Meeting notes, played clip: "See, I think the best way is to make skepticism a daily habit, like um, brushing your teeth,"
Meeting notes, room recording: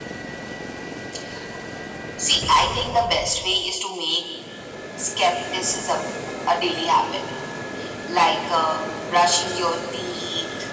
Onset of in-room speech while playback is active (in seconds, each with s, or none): none